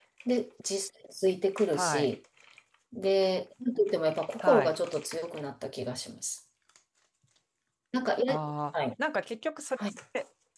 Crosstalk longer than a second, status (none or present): none